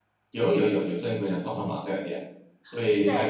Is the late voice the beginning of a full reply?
Yes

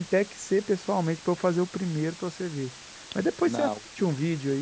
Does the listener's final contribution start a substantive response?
No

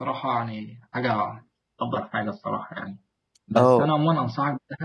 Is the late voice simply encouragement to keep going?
Yes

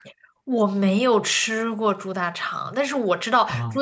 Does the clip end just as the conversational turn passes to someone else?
No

